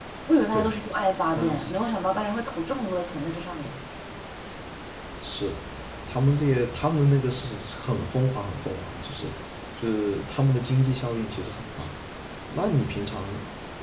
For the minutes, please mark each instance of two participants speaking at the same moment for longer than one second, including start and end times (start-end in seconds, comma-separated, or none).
none